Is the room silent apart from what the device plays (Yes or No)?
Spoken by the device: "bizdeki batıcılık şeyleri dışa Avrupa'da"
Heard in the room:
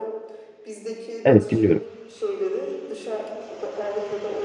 No